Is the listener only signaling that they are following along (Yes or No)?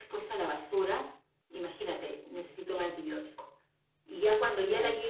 Yes